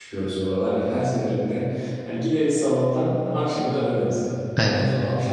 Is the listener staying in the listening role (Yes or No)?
Yes